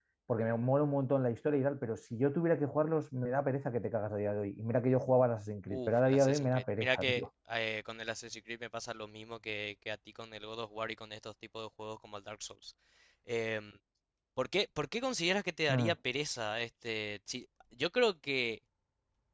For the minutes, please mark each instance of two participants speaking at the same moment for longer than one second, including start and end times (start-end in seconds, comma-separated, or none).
5.7-7.2